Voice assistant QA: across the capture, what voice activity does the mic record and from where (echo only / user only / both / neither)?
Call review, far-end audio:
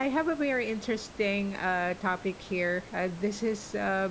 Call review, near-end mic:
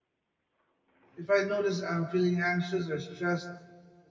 user only